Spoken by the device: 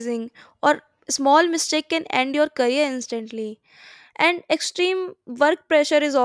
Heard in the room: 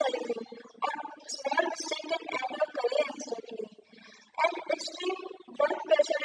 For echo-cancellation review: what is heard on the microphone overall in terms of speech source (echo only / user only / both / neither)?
echo only